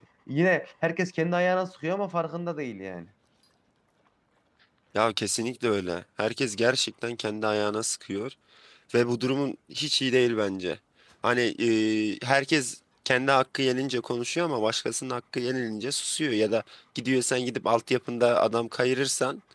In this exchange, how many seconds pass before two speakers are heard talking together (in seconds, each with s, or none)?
none